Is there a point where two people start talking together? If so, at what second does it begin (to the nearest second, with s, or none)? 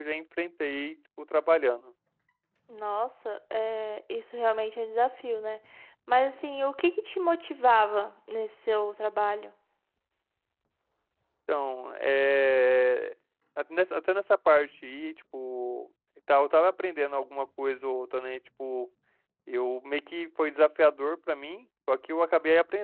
none